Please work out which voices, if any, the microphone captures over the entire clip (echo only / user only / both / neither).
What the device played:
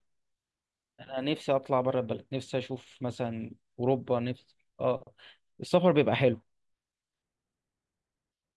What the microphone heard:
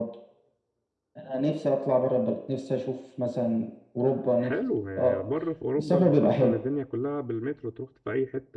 both